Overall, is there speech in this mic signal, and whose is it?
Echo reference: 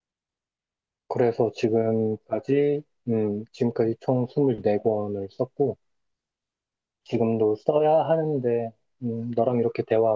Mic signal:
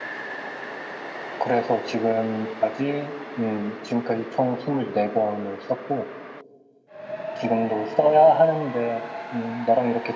echo only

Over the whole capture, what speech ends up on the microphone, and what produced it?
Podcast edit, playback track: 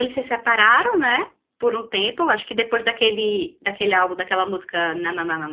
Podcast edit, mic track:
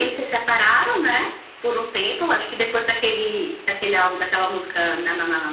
echo only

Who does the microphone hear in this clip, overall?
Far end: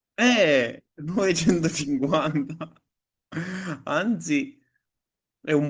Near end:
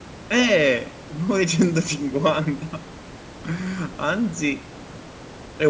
echo only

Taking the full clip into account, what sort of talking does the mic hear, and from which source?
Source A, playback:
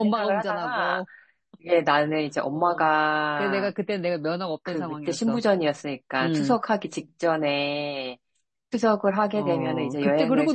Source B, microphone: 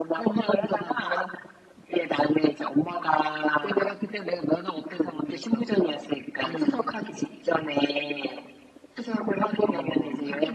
echo only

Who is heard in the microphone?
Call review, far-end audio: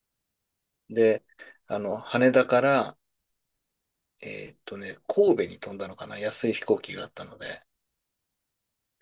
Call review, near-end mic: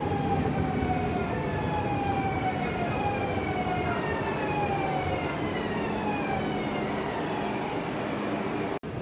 neither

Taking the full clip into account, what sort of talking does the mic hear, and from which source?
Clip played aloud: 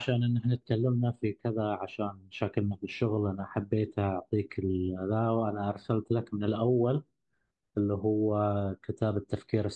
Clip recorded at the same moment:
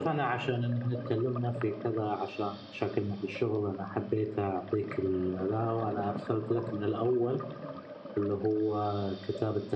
echo only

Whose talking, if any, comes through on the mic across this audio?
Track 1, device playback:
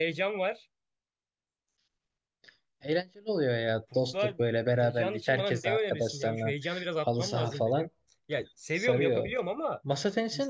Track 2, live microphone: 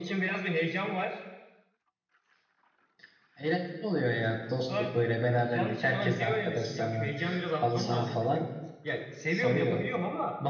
echo only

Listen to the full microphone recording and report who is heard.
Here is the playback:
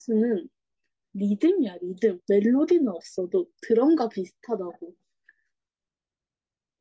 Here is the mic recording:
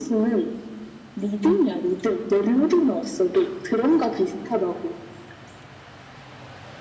echo only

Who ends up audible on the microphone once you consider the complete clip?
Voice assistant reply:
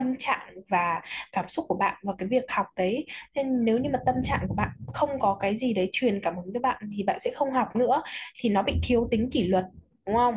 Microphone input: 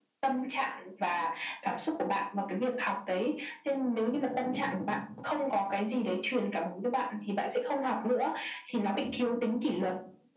echo only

